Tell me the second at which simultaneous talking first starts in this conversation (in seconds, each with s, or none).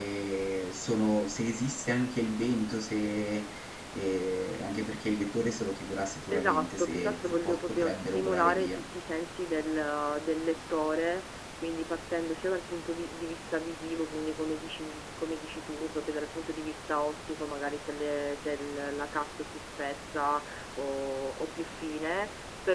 6.3 s